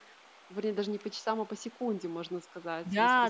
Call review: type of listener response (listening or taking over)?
taking over